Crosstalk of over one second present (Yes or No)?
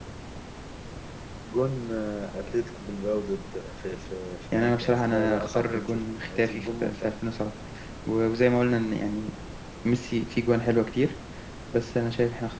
Yes